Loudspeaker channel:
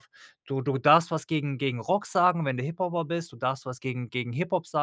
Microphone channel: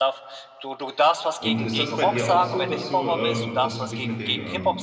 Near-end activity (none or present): present